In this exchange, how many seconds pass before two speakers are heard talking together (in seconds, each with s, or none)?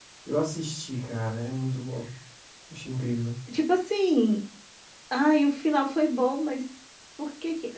none